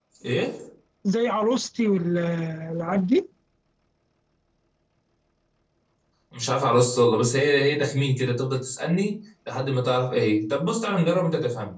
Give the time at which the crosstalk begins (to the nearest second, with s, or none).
none